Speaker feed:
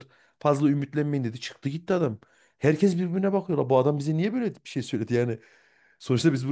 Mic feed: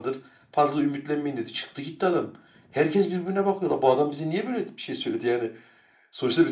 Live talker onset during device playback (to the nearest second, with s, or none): none